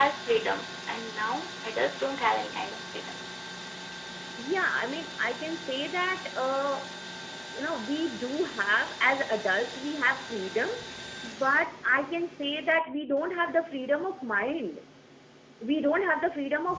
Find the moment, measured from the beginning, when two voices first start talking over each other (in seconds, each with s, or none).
none